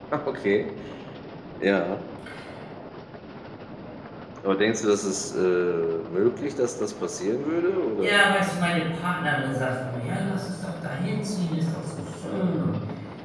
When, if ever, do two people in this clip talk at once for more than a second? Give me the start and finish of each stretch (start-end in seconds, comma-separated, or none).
none